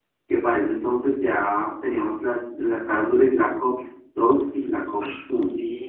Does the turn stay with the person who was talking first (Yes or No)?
No